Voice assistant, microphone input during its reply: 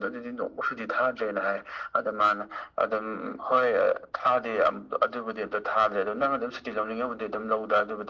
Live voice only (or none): none